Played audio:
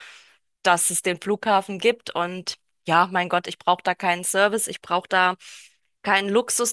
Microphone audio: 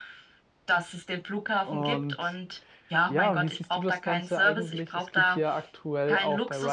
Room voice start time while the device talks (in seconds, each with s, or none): 1.6 s